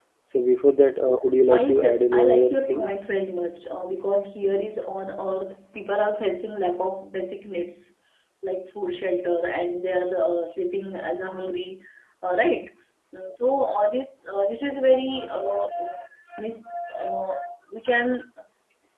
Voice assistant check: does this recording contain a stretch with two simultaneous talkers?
Yes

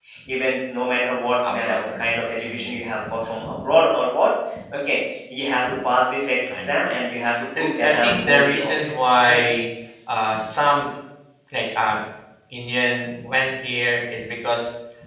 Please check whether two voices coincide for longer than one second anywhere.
Yes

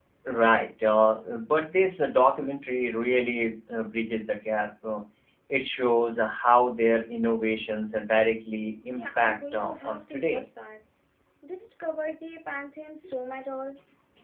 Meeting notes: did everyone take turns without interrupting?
No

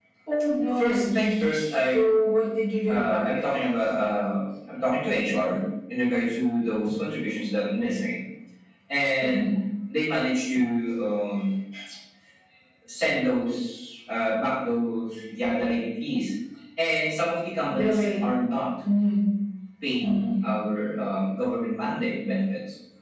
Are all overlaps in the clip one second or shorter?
No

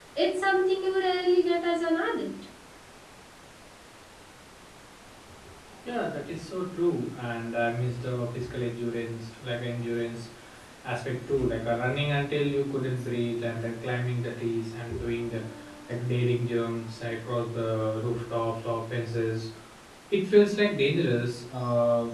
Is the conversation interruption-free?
Yes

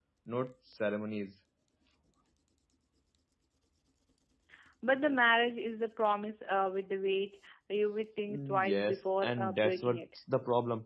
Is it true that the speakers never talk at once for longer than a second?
No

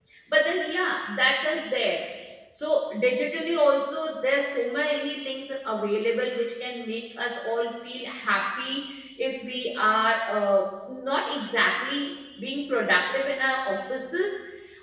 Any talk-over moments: No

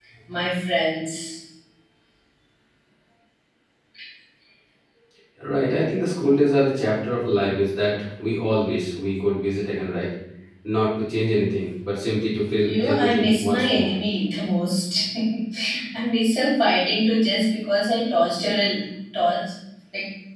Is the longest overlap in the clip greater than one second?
Yes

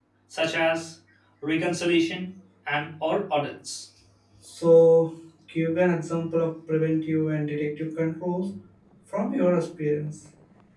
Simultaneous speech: No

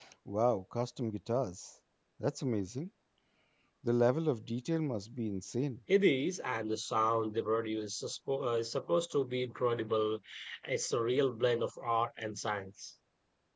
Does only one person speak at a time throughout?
Yes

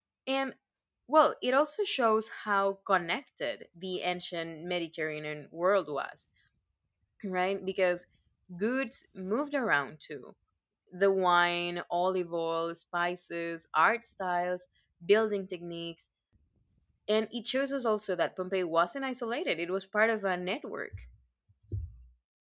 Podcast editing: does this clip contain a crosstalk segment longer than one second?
No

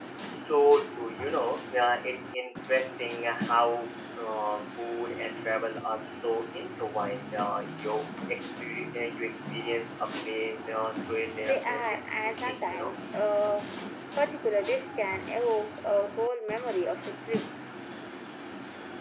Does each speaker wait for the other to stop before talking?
No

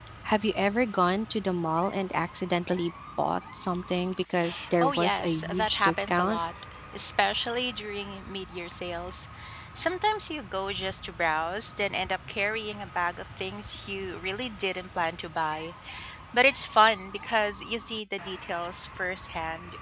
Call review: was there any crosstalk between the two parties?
Yes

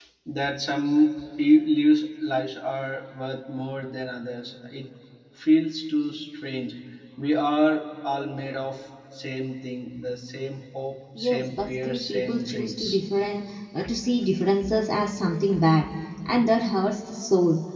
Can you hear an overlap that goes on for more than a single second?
Yes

